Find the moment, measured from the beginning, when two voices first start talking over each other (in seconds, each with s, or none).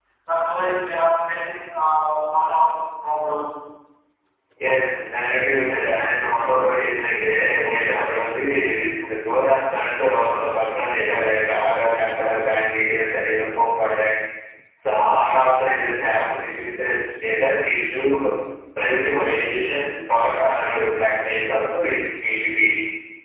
none